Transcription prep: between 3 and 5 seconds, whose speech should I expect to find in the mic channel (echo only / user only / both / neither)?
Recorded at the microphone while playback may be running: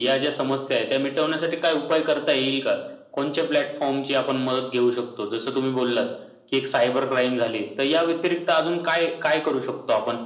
echo only